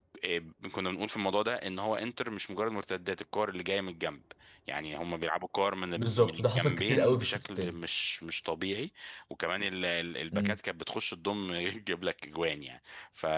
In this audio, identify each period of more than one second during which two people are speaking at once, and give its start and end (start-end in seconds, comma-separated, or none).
6.0-7.8